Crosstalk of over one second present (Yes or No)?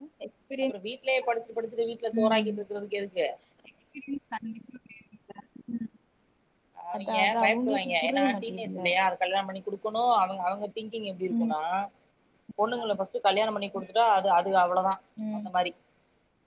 Yes